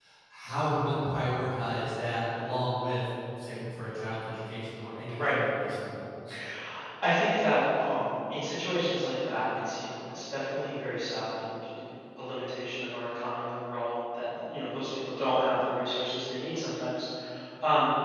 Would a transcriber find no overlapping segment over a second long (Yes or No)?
Yes